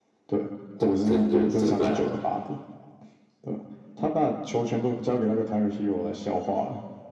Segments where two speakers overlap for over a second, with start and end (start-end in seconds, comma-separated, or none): 0.8-2.2